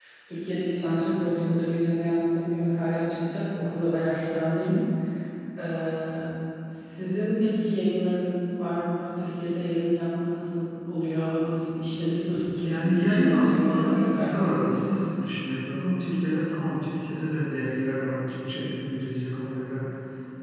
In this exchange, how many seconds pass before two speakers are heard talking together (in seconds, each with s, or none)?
12.6 s